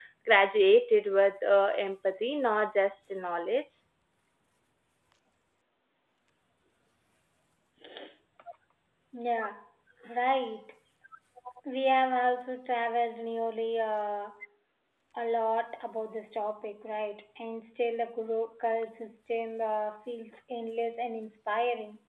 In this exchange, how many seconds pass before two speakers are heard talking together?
none

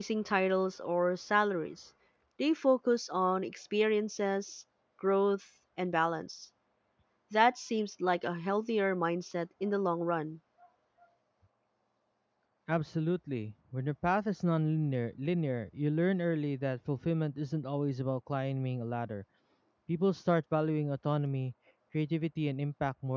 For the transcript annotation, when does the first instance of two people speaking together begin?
none

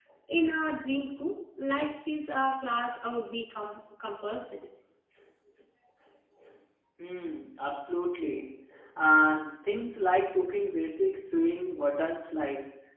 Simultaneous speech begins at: none

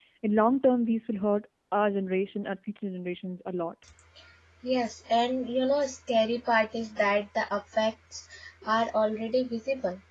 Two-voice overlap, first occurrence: none

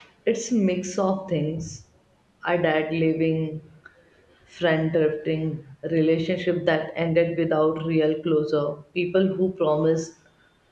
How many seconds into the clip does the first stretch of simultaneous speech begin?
none

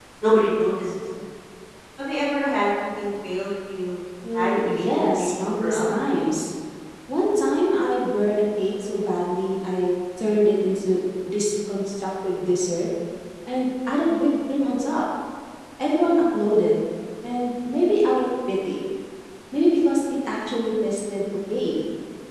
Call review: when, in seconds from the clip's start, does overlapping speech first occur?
4.2 s

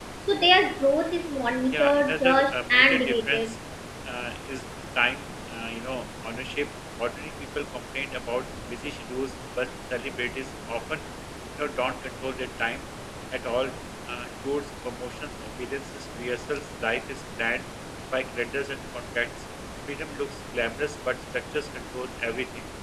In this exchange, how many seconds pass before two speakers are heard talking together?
1.7 s

